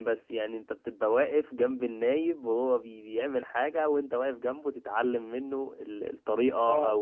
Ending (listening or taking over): listening